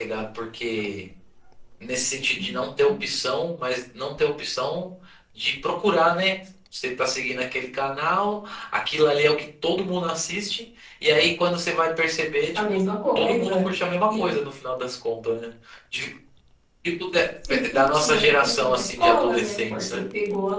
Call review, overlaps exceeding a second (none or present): present